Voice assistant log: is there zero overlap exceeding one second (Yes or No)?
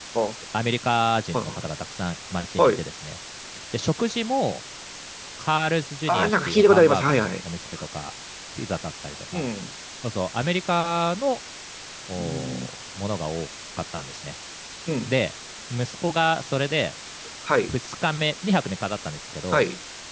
No